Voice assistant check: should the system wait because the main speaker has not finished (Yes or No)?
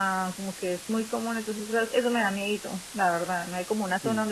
Yes